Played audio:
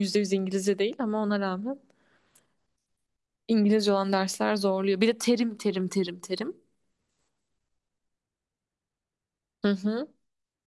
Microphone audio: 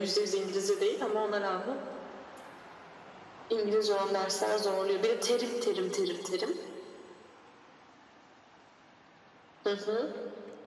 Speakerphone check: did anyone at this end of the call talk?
No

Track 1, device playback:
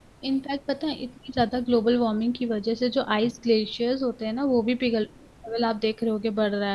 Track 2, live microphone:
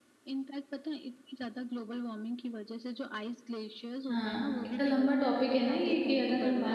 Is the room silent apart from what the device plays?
No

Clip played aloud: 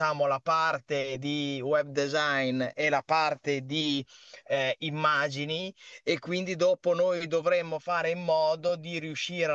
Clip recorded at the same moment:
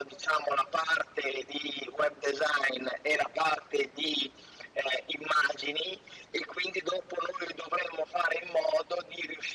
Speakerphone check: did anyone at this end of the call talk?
No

